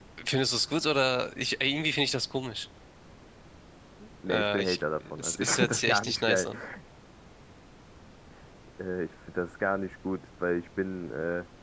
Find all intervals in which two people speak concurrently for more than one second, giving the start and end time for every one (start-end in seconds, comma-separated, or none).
5.2-6.5